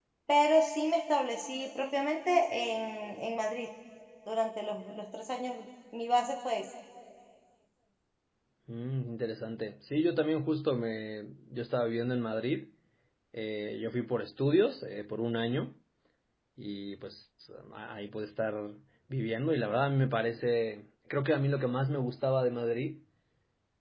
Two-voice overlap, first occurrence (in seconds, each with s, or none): none